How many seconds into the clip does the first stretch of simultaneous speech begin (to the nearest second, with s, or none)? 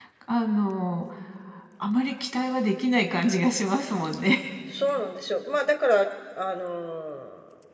none